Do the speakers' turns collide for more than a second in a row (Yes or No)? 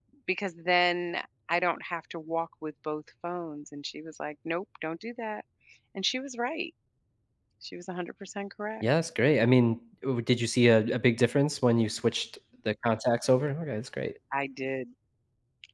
No